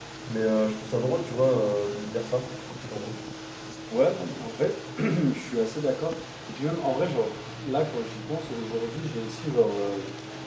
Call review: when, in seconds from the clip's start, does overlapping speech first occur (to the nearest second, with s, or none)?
none